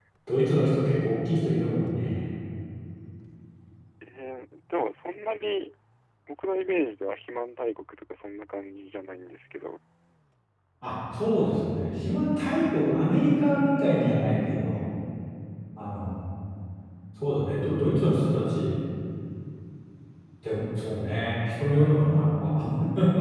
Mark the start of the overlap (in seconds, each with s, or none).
none